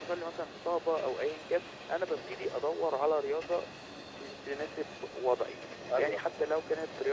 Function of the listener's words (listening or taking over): listening